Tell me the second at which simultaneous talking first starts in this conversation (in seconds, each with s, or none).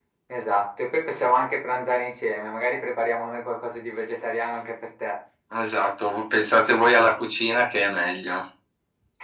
none